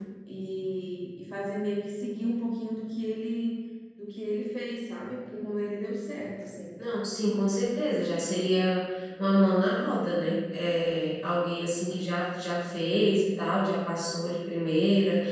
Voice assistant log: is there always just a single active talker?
Yes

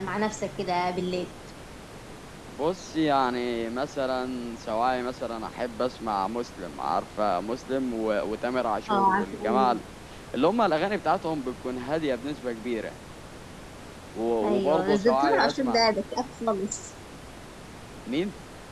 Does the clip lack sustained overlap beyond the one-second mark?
No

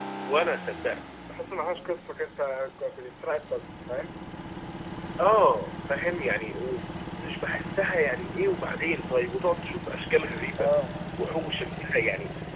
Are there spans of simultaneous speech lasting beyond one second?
No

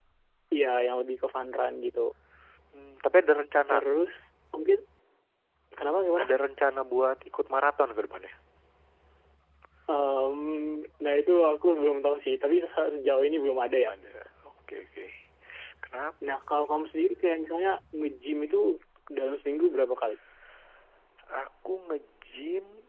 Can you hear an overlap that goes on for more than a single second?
No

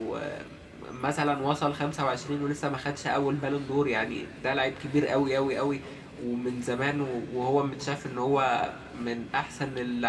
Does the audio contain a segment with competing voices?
No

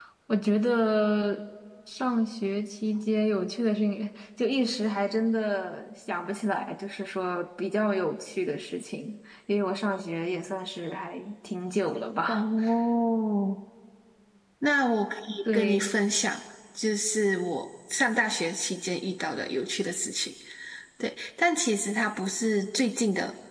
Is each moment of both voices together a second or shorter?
Yes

